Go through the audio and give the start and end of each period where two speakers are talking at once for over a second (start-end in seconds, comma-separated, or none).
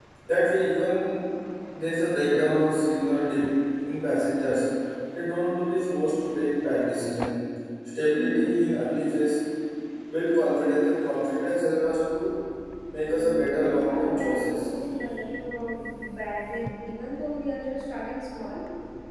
13.2-14.7